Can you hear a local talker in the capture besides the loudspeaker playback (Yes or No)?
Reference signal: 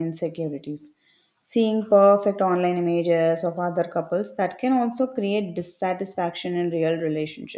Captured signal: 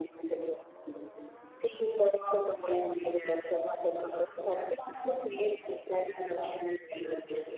No